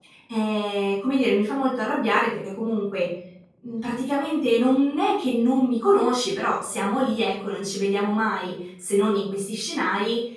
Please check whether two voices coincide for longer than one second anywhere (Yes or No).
No